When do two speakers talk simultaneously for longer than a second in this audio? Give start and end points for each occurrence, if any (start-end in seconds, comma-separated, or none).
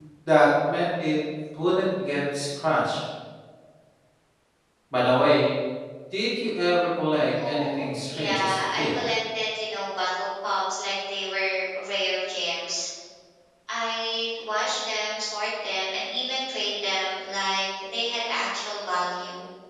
7.4-8.9